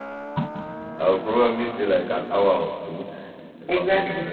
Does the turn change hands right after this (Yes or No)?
Yes